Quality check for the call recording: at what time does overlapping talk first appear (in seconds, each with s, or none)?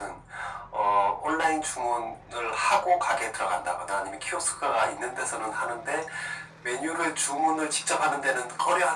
none